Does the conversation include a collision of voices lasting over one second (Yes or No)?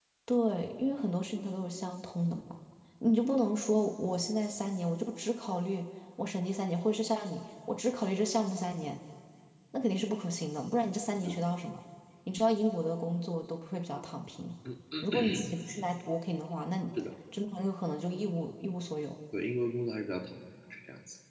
No